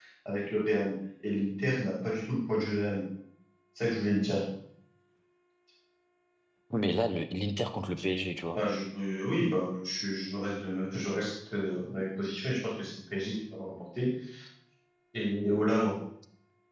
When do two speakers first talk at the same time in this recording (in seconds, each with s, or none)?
none